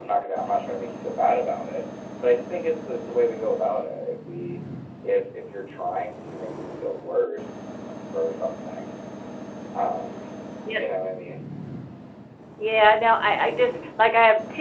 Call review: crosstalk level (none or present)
none